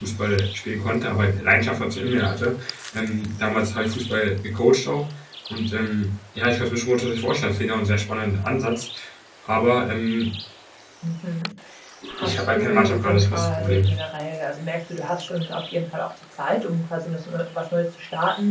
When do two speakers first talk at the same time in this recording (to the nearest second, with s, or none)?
12 s